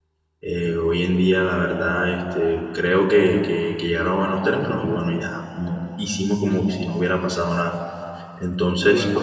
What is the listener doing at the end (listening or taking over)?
listening